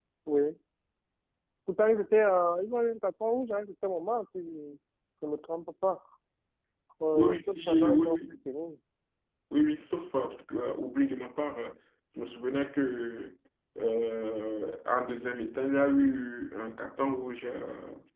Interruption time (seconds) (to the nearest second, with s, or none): 7 s